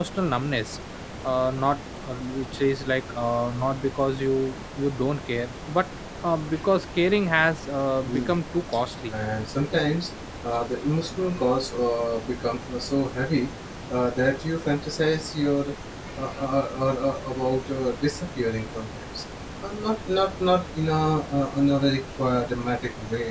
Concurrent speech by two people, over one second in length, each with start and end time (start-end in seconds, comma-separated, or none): none